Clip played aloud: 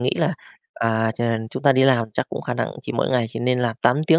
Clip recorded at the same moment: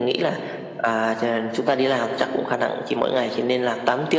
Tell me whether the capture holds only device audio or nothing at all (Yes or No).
Yes